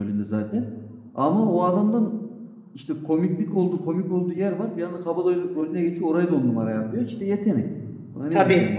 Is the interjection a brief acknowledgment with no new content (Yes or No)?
No